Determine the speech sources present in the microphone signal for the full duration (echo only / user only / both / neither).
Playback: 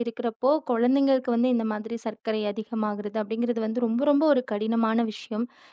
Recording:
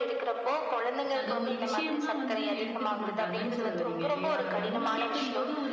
both